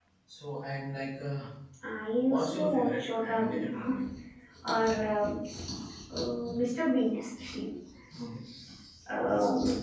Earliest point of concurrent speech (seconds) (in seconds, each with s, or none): 2.3 s